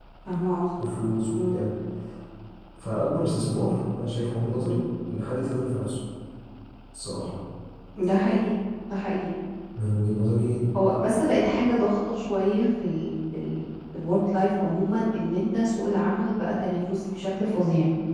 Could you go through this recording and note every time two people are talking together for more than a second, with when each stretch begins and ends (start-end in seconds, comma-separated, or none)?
none